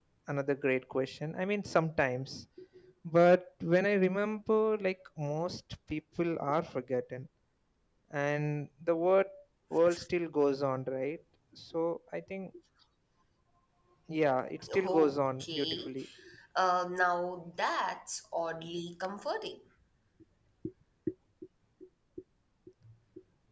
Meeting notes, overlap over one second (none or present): present